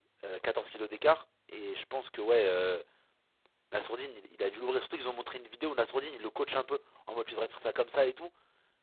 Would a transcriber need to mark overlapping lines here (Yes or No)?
No